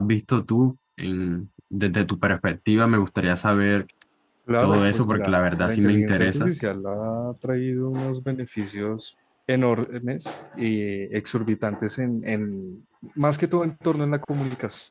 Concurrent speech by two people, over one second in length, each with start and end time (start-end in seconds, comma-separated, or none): 4.6-6.5